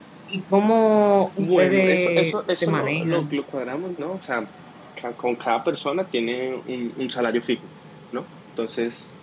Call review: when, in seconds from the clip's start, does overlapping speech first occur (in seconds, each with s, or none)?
1.4 s